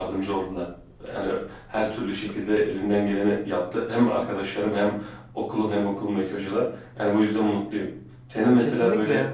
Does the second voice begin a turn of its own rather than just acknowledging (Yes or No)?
No